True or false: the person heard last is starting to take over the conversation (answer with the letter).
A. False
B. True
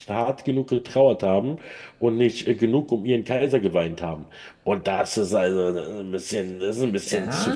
B